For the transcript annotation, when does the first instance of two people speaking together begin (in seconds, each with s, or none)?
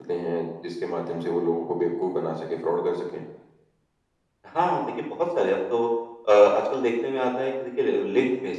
none